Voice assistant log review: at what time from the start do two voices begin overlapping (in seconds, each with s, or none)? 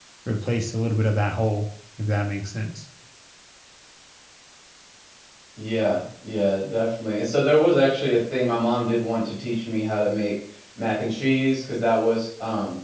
none